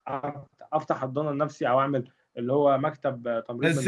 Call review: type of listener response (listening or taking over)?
taking over